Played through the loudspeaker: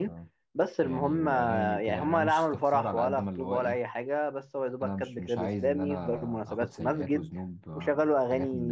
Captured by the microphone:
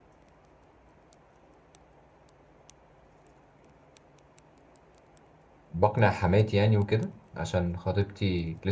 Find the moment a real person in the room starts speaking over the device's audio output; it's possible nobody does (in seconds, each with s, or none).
5.7 s